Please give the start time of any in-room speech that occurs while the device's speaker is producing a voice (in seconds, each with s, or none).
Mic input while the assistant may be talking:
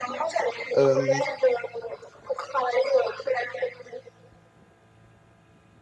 0.8 s